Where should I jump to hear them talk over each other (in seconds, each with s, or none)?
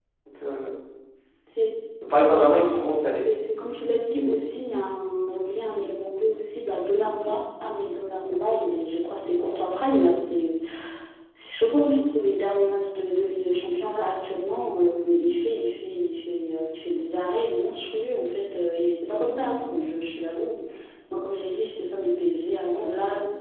none